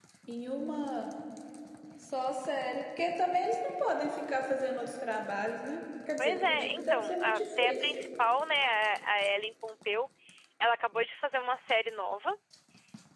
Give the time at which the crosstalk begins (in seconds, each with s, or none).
6.2 s